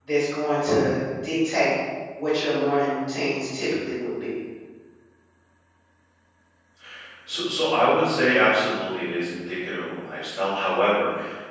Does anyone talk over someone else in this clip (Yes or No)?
No